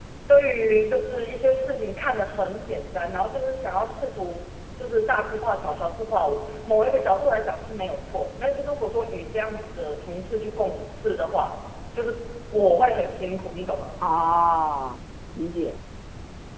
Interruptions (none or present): none